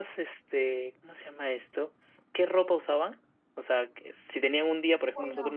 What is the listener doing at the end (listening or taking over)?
listening